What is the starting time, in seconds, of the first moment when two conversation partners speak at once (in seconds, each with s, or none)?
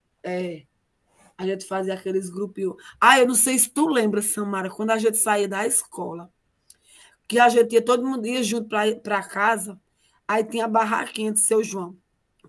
none